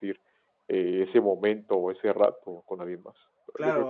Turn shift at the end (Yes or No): Yes